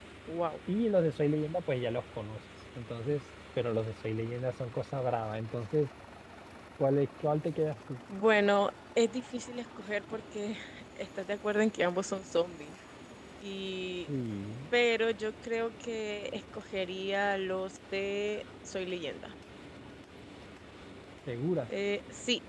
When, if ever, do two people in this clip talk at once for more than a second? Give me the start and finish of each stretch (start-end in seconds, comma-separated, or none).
none